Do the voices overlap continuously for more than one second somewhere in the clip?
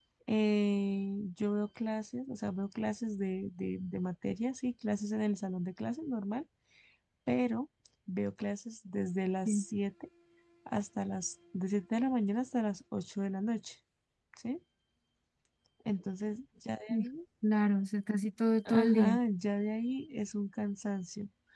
No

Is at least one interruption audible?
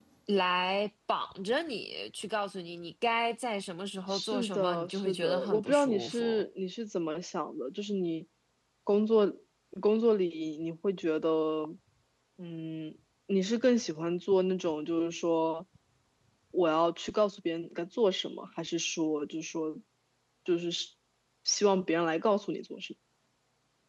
Yes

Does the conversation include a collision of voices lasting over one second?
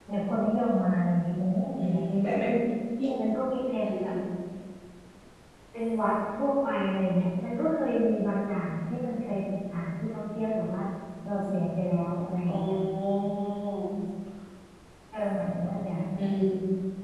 No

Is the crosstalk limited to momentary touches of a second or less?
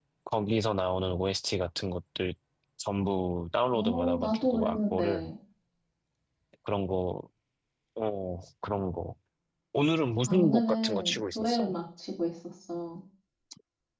No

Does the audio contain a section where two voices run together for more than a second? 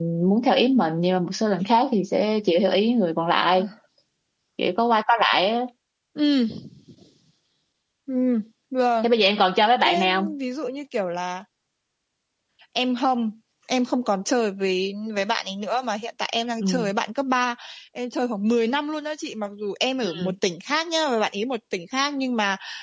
No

